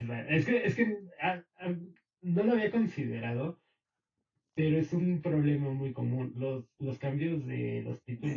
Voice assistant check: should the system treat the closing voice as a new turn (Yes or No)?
Yes